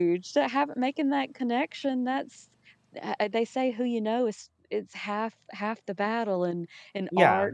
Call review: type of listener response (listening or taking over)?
listening